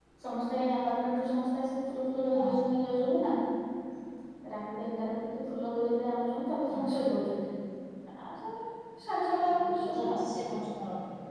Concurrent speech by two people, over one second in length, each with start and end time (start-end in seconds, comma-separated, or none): none